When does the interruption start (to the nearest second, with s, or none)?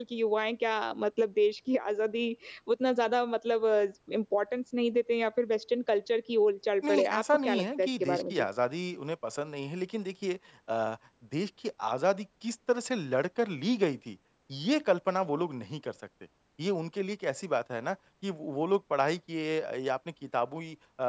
7 s